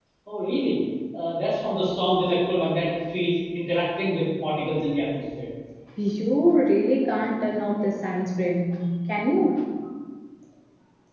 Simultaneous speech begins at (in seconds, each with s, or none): none